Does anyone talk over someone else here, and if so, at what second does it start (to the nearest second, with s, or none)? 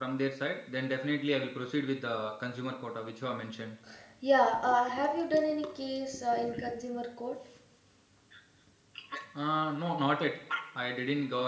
none